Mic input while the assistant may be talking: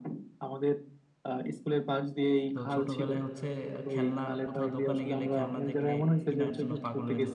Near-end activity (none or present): present